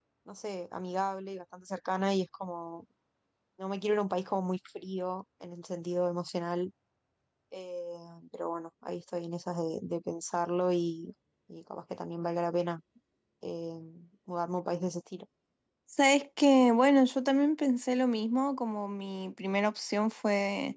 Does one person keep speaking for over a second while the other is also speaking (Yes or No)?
No